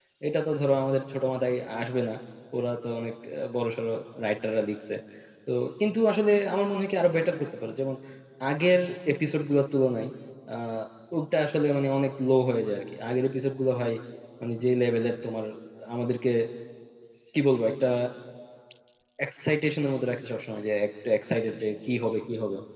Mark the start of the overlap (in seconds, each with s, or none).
none